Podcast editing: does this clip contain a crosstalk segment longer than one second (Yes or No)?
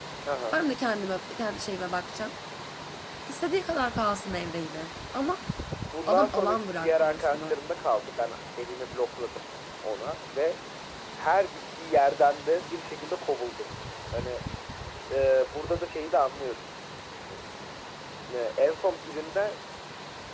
Yes